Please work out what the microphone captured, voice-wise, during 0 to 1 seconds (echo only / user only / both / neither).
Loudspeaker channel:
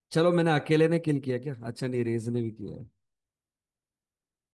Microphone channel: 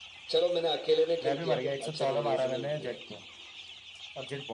echo only